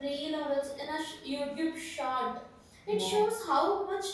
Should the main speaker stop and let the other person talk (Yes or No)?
No